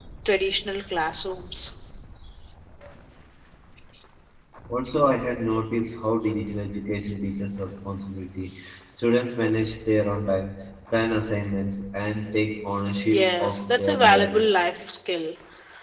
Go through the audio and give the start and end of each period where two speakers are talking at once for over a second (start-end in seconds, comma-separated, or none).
13.1-14.5